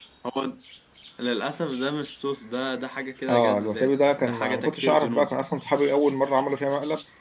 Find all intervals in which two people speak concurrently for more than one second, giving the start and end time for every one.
3.3-5.4

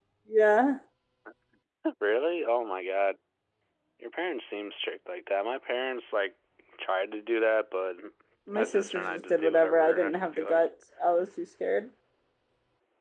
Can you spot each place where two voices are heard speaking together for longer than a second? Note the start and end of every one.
8.5-10.6

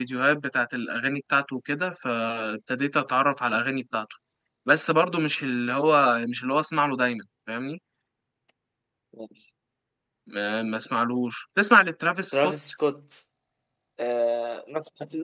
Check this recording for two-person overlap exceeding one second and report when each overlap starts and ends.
none

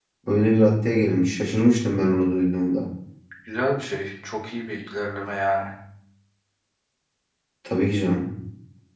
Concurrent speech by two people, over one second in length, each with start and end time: none

